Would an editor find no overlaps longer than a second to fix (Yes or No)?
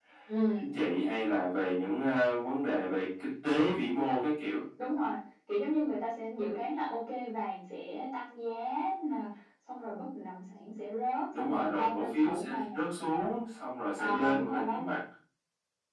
No